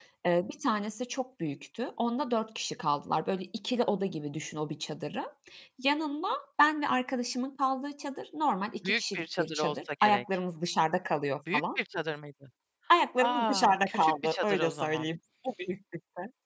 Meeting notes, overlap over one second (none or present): present